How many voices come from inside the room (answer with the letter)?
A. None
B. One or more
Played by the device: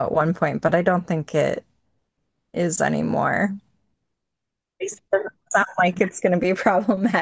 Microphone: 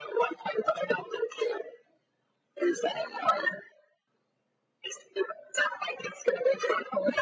A